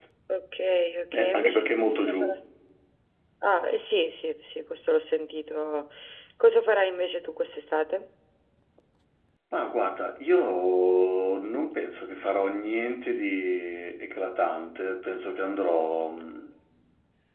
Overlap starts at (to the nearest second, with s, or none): 1 s